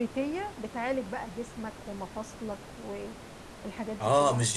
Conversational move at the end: taking over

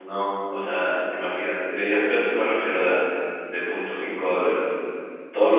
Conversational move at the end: listening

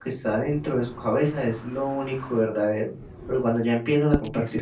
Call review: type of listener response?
listening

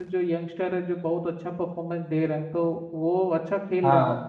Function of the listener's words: taking over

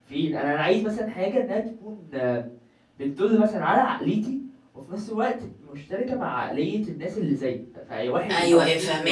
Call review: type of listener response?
taking over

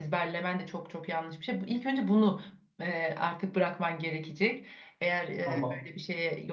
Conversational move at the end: listening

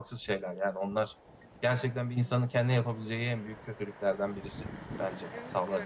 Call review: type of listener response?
taking over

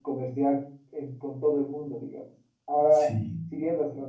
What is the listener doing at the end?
listening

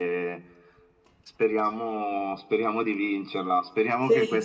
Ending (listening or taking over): listening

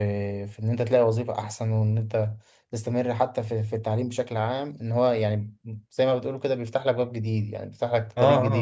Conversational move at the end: taking over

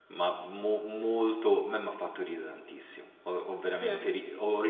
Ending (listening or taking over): listening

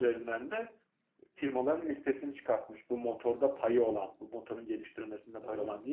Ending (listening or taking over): listening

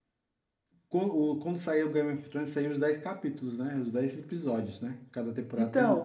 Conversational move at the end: taking over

